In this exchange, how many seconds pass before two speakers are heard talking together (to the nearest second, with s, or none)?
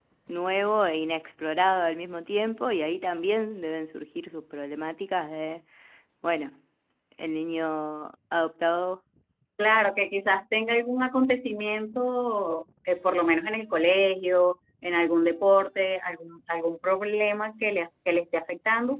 none